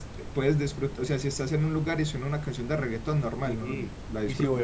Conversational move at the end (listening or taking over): taking over